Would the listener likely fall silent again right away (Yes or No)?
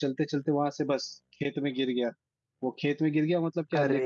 Yes